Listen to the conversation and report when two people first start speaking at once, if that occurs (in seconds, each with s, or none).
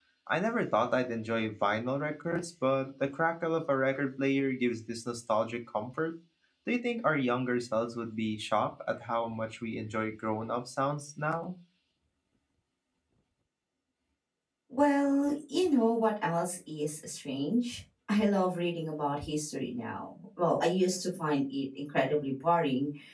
none